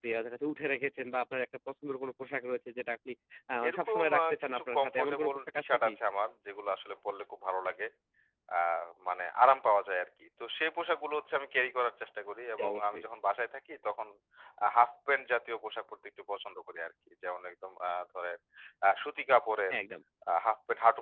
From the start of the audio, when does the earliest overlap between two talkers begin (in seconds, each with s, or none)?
3.7 s